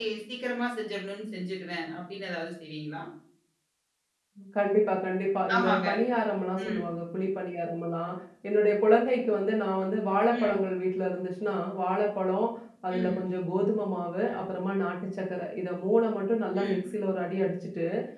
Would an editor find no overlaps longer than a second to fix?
Yes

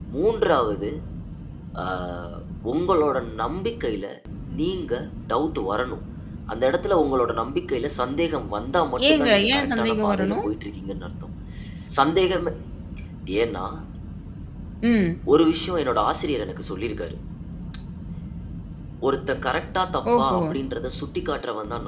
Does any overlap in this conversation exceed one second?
Yes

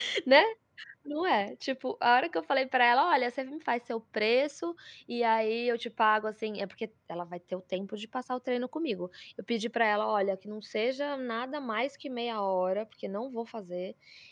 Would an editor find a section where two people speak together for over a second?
No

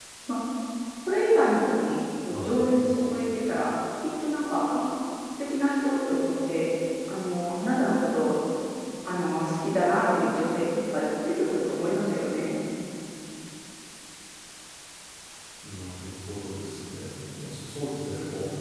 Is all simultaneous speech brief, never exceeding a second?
Yes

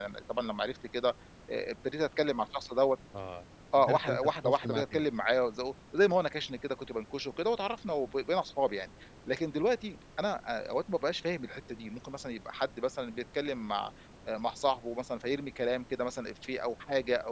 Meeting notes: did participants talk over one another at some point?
Yes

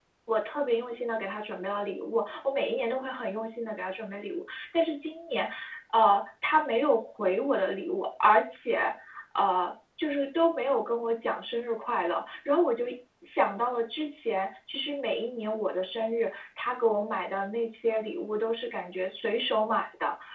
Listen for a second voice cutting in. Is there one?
No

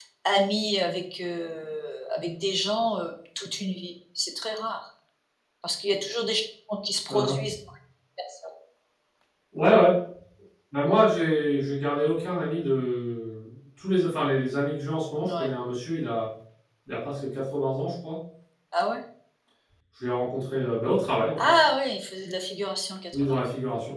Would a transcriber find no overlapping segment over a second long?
Yes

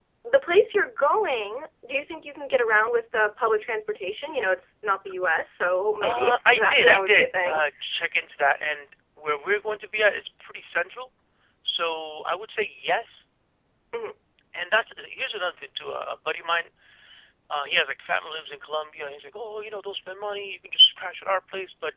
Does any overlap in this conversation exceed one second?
Yes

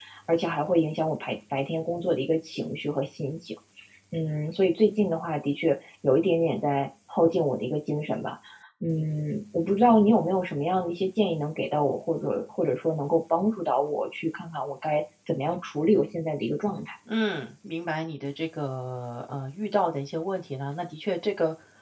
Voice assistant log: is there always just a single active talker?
Yes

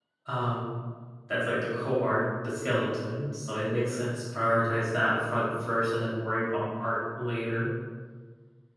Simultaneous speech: No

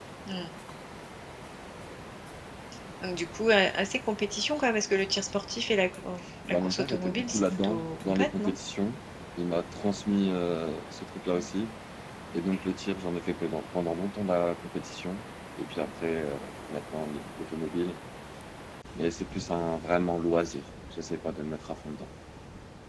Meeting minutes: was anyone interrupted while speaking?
Yes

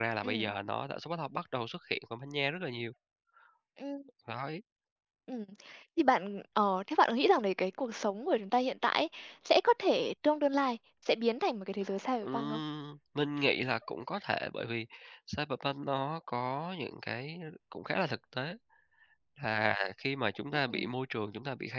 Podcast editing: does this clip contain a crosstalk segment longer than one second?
No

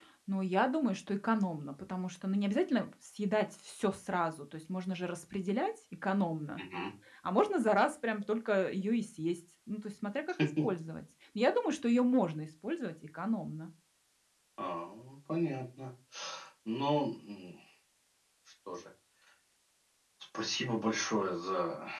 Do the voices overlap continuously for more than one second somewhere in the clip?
No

